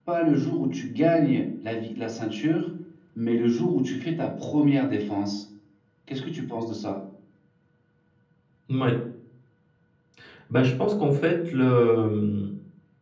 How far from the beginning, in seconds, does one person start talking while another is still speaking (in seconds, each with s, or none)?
none